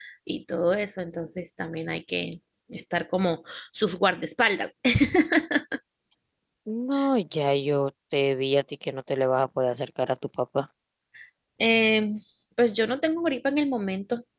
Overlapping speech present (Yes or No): No